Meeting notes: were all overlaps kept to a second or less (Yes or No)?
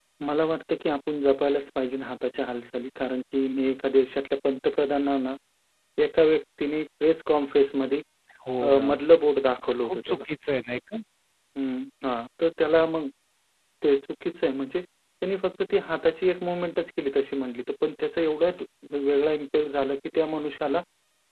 Yes